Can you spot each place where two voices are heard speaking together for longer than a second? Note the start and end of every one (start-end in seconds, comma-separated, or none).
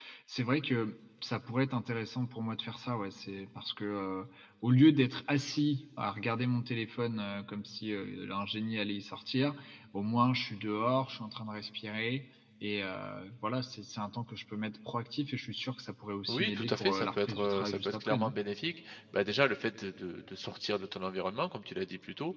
16.3-18.3